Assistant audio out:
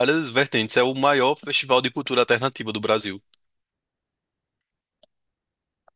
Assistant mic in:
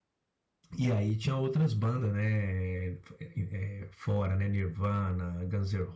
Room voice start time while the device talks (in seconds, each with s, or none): 0.8 s